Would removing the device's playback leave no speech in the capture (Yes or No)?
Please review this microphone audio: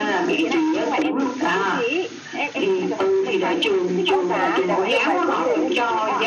No